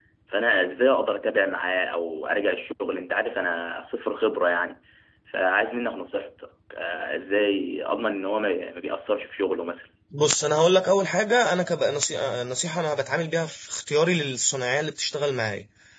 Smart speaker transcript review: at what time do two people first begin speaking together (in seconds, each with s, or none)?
none